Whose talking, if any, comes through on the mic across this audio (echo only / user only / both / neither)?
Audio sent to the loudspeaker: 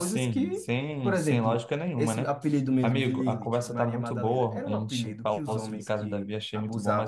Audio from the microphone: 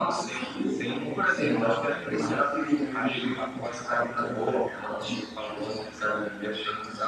echo only